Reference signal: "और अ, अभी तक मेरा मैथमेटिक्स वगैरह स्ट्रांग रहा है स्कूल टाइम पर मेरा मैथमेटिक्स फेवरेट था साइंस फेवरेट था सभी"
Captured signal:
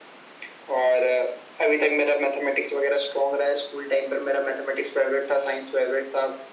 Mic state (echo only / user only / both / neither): echo only